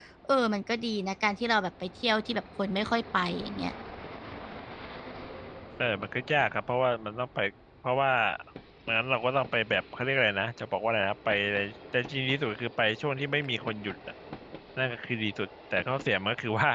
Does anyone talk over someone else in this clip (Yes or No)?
No